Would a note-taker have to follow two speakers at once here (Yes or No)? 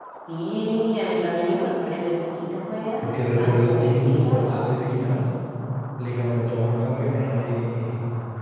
Yes